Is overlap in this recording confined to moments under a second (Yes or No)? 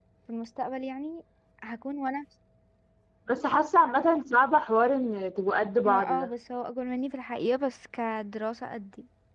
Yes